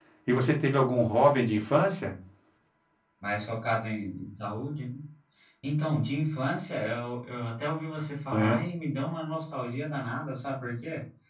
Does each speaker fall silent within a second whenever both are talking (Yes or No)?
Yes